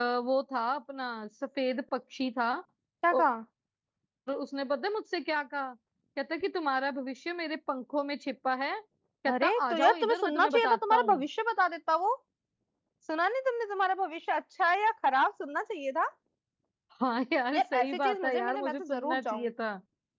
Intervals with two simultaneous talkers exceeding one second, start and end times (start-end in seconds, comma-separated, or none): 9.3-11.2, 17.5-19.5